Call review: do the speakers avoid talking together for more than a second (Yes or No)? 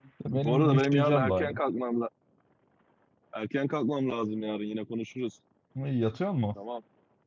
No